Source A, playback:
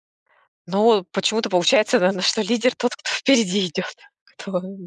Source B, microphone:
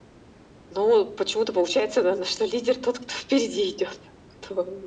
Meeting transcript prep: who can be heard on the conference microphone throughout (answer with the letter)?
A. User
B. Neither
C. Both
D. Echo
D